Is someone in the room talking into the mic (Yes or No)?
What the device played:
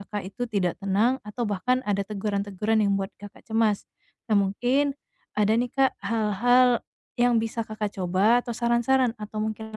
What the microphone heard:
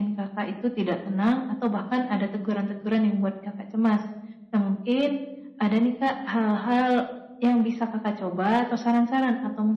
No